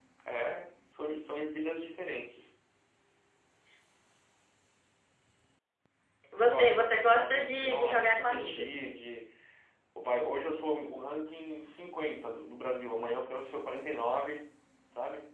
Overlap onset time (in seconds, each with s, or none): 6.4 s